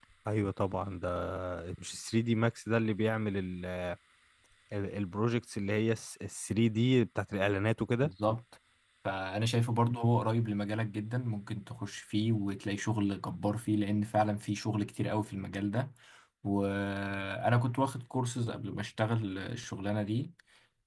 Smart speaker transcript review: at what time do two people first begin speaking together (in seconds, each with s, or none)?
none